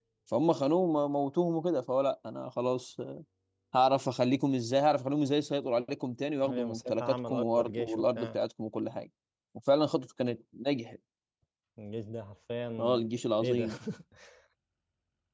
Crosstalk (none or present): present